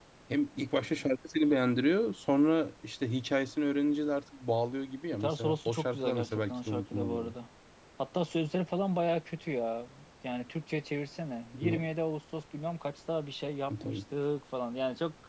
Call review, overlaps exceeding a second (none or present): present